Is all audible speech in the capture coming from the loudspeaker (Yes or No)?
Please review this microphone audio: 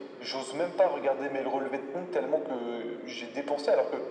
Yes